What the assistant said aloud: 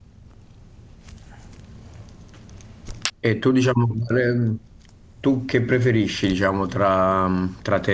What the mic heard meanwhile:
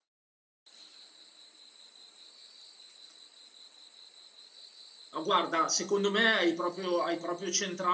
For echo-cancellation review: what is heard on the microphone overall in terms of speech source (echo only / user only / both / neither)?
user only